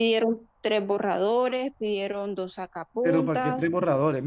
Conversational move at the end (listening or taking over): taking over